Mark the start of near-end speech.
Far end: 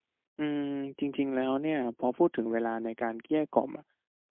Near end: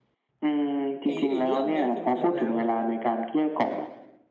1 s

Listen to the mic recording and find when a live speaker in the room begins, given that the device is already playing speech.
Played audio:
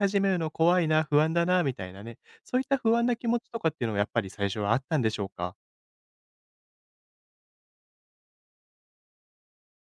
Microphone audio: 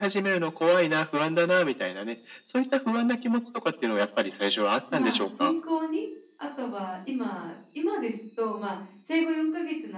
5 s

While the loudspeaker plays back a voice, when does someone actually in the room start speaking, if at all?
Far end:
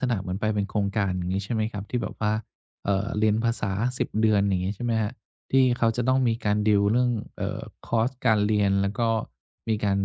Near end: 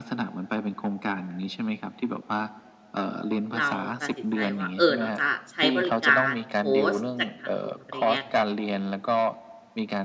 4 s

